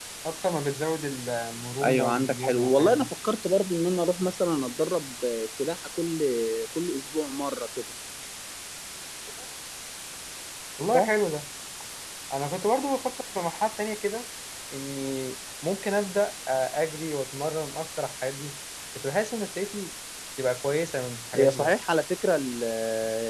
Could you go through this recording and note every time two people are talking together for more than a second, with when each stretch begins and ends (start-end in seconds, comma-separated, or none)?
1.8-3.1